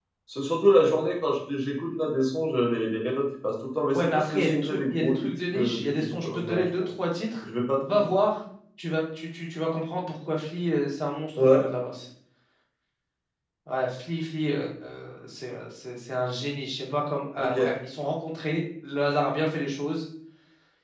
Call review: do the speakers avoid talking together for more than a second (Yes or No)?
No